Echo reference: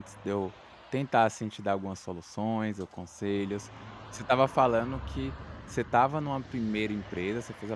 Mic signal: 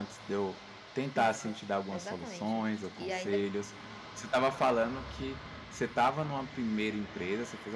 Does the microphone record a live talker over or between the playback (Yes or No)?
Yes